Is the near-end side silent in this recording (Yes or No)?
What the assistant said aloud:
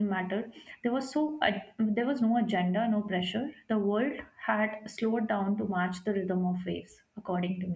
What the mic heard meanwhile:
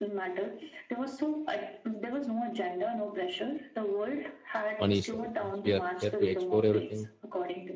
No